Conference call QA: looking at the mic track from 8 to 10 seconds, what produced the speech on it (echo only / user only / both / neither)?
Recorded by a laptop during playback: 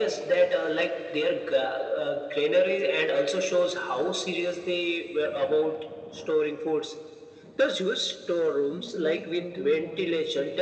both